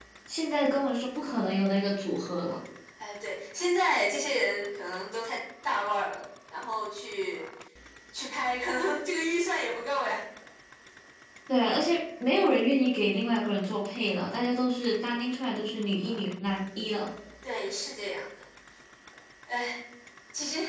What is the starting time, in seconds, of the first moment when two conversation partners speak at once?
none

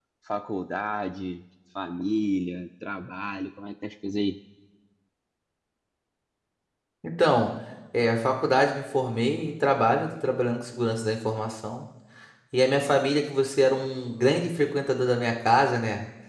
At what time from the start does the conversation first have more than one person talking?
none

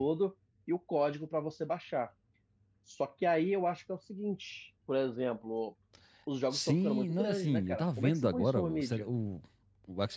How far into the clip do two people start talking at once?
6.5 s

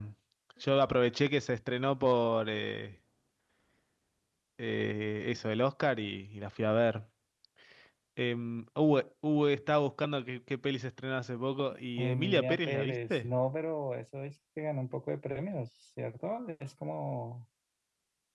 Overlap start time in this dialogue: 12.0 s

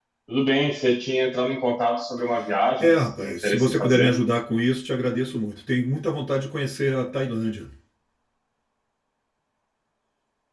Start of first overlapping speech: 2.8 s

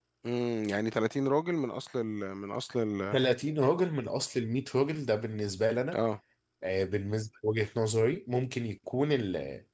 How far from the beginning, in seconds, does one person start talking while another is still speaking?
none

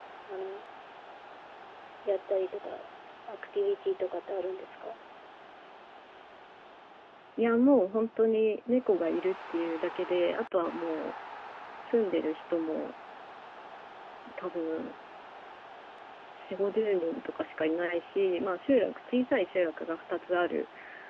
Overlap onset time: none

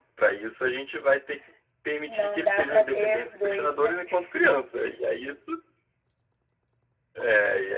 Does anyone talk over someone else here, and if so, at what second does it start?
2.1 s

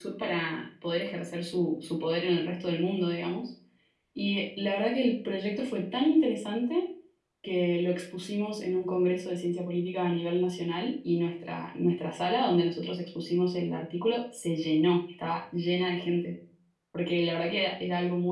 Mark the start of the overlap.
none

